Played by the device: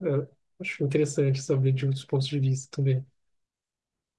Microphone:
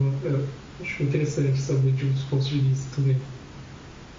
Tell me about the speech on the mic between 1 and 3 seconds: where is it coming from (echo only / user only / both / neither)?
echo only